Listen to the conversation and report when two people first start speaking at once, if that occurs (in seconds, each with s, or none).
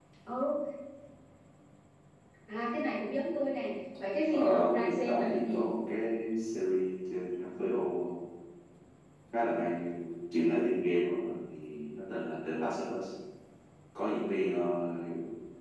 4.3 s